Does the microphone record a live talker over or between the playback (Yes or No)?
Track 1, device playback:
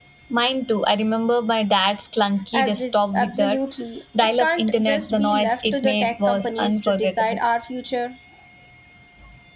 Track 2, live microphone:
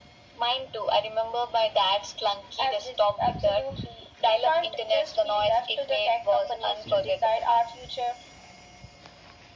No